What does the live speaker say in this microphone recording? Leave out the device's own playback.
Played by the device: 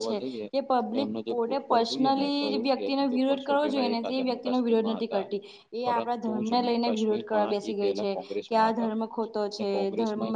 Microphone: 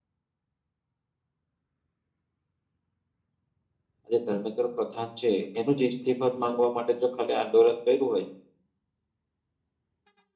આજે ધર્મેન્દ્ર પ્રધાન છે એનું જ ઇસ્તીફાદ માંગવા માટે જો ખાલી આંદોલન કર્યું હોય

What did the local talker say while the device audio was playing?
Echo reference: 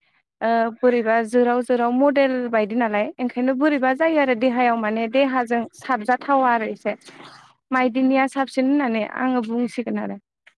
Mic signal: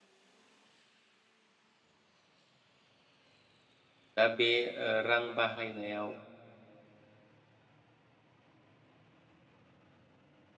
दा बे ओ रां बाहायनायाव

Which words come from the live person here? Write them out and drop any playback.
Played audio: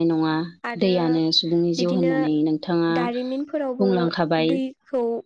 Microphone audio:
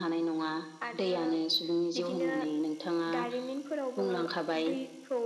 none

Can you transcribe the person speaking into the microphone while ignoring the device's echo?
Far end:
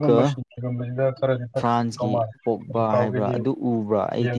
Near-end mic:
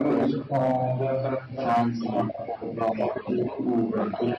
ꯑꯣ

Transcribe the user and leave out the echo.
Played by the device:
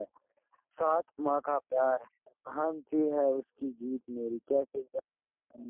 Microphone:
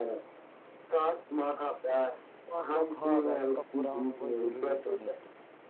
تو اب تو خواب ہے ان کا پورا ہونا کو ضروری تو نہیں ہے

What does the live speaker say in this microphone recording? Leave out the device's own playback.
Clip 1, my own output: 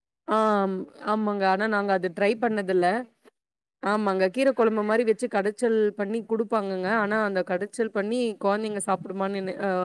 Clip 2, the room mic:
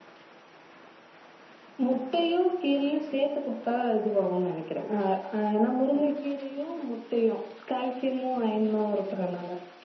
முட்டையு கீரையு சேத்து குடுத்தா இதுவாகுன் நெனைக்கிறே ஆ அ ஏனா முருங்கக்கீரயு முட்டையு கால்சியமு ஐயனு இருக்குறனால

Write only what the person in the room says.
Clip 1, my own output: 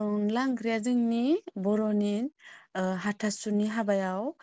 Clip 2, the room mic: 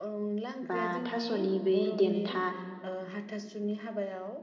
बा थास'नि बै देनथा

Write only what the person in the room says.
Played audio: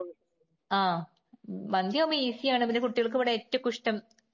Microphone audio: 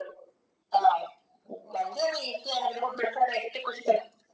none

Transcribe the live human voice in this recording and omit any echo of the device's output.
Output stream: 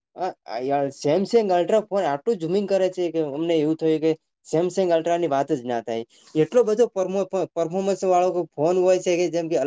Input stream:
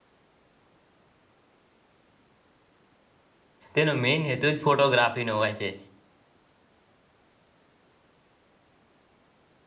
તેનો મેન હેતુ જ ફોટોગ્રાફીનો હોય છે.

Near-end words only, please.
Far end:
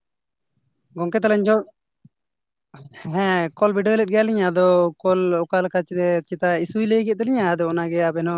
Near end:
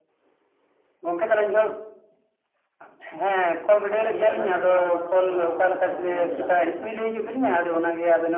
ᱟᱪᱪᱷᱟ ᱱᱤᱭᱟᱹ ᱴᱟᱜ ᱞᱟᱝ ᱜᱟᱞᱢᱟᱨᱟᱣ ᱠᱟᱜ ᱞᱮᱜᱮ, ᱫᱚᱲᱦᱟ ᱫᱚ ᱦᱟᱸᱜ ᱱᱟᱯᱟᱭ ᱥᱮᱫ ᱞᱤᱧ ᱪᱟᱞᱟᱜᱼᱟ᱾

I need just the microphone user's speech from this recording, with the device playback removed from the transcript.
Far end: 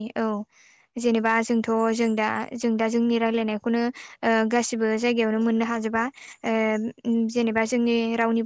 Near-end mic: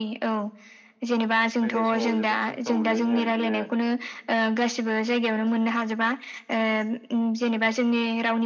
फैनाय समाव जोबोद खस्थ' मोनदों जोङो बिदिनो

